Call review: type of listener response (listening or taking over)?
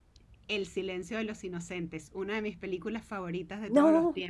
taking over